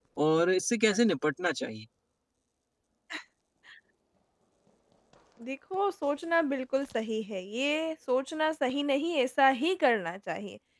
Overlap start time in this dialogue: none

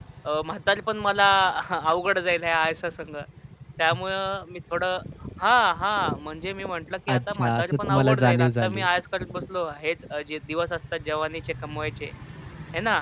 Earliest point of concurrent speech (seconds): 7.1 s

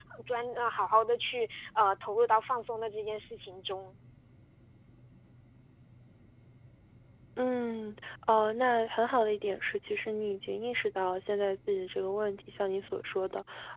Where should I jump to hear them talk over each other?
none

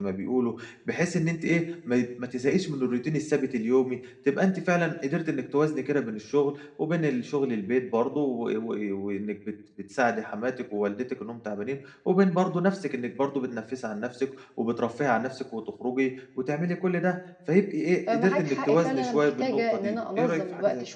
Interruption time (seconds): 18.1 s

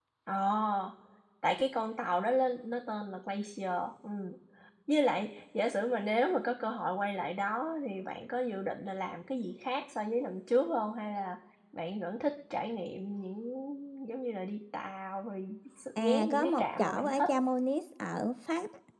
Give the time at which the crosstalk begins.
16.0 s

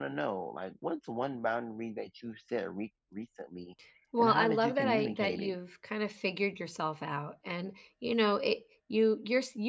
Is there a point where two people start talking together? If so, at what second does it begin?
4.2 s

